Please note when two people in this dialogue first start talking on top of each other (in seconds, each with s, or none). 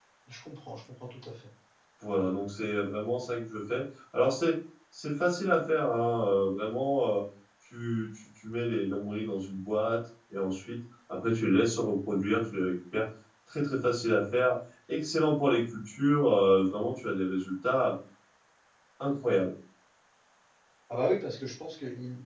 none